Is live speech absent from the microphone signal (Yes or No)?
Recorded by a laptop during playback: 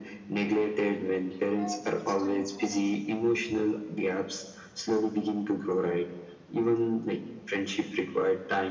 No